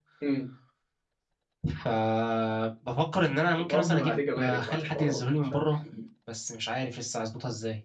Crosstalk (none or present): present